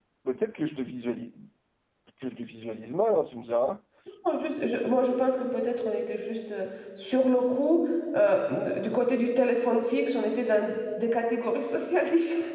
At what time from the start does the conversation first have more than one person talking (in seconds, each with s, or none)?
none